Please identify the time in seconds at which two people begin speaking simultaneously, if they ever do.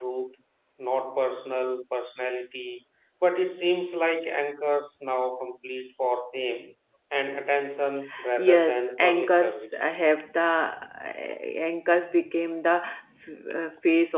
8.4 s

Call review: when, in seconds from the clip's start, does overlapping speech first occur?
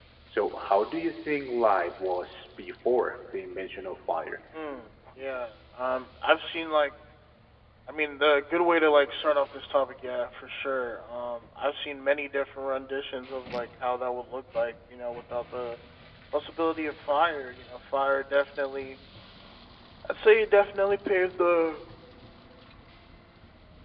none

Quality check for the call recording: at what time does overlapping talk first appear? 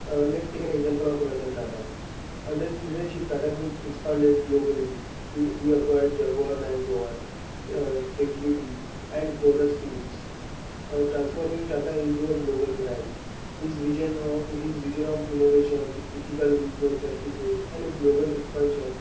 none

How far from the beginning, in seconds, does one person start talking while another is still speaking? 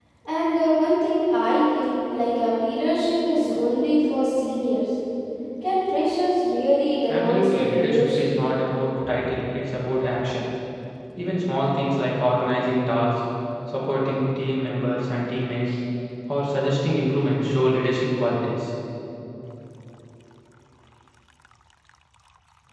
7.1 s

